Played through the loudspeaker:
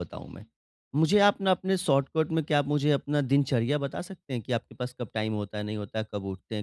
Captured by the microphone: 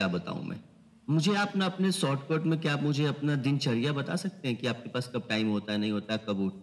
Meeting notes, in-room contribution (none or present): none